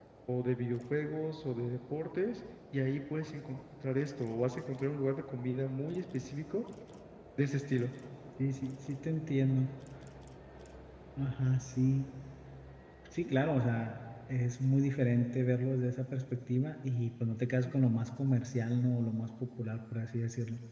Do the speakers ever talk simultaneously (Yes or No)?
No